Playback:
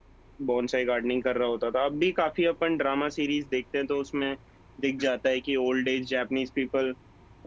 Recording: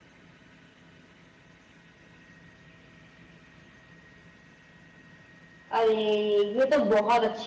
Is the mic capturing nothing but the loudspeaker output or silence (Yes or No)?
No